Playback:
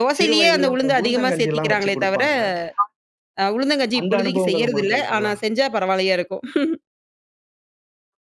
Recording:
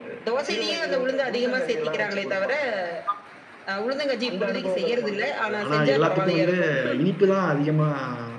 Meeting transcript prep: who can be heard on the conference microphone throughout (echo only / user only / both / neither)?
both